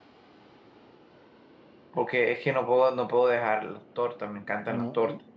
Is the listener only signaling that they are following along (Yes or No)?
No